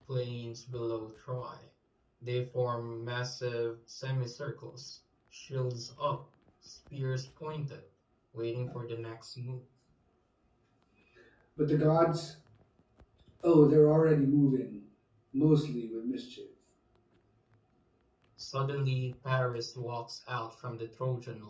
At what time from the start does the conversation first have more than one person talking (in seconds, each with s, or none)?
none